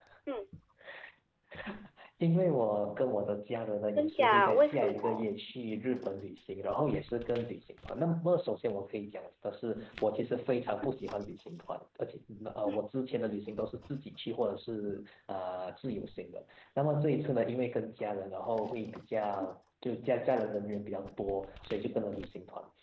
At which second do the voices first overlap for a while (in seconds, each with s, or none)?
4.0 s